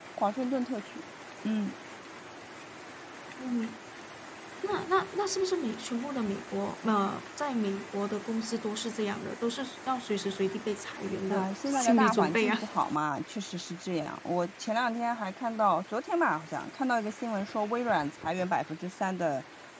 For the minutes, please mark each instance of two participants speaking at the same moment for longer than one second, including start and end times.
11.3-12.5

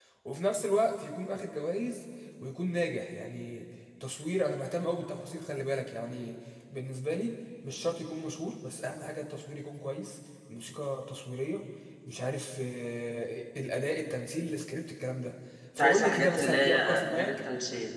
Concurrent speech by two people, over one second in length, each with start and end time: 15.8-17.3

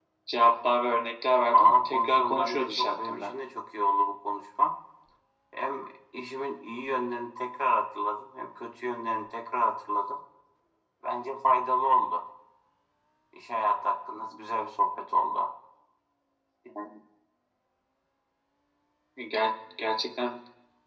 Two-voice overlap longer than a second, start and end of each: 1.5-3.3

